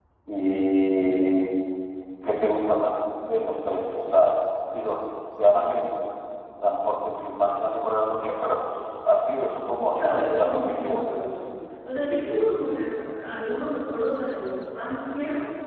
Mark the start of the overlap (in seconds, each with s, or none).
9.9 s